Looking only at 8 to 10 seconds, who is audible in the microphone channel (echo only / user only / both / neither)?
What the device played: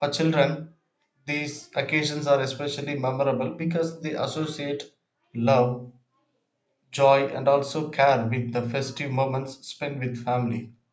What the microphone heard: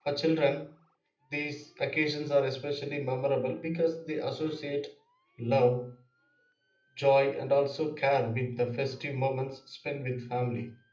echo only